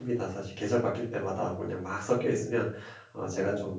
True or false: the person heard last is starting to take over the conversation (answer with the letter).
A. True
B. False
B